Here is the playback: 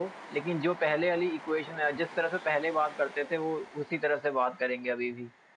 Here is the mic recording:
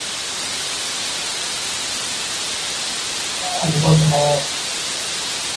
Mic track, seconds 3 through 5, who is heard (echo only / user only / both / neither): user only